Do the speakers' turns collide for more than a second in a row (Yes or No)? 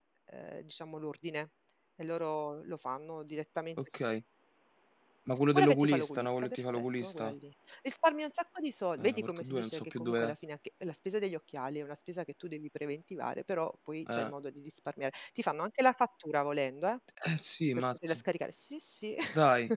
Yes